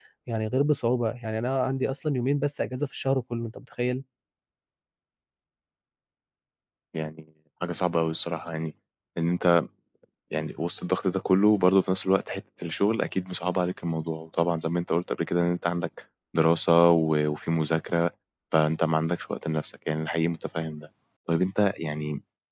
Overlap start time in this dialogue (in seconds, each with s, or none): none